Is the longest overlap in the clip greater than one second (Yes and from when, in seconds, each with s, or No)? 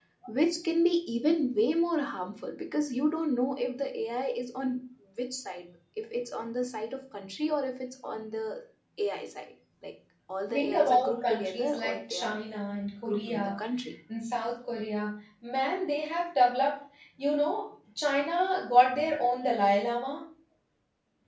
Yes, from 10.5 s